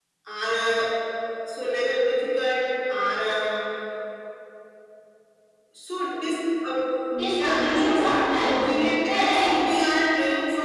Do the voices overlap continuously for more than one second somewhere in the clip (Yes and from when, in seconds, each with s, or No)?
Yes, from 7.4 s